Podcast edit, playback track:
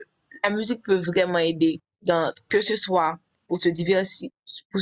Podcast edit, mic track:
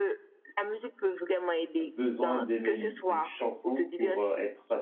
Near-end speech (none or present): present